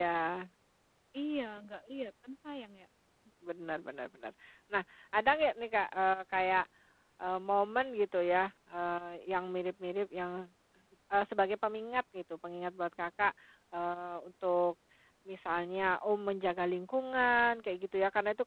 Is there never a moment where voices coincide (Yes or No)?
Yes